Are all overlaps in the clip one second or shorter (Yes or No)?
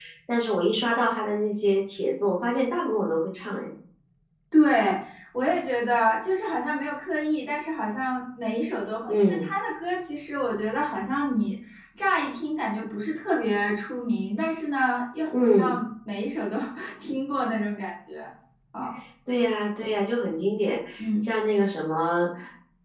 Yes